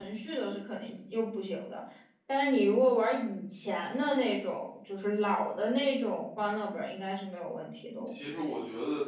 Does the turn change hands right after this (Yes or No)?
Yes